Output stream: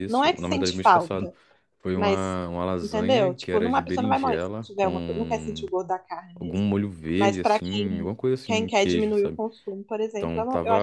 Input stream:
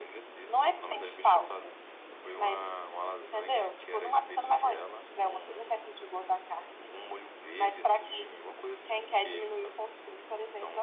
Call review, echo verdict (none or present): present